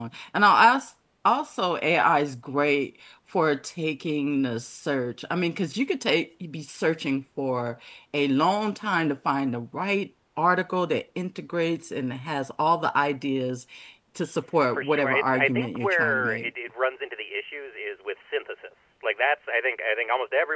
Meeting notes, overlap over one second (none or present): present